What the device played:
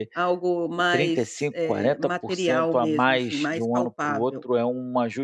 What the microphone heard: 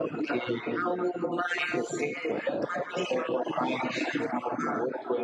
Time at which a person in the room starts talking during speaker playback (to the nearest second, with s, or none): none